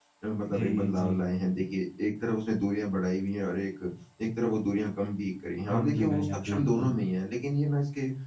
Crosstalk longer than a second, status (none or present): present